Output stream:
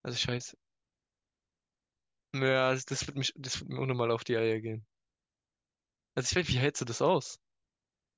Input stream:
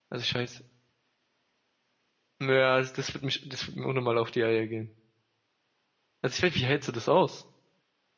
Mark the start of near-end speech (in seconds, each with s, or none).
none